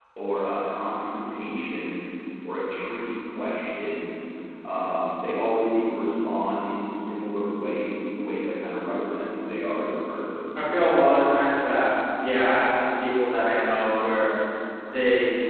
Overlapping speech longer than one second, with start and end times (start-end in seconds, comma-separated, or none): none